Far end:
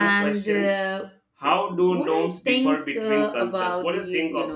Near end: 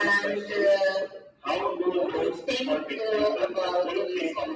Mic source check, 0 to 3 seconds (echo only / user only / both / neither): echo only